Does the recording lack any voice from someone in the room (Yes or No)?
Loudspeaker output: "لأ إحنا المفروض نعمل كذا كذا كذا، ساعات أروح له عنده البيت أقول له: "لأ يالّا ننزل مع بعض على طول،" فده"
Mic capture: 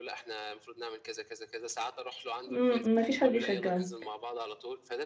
No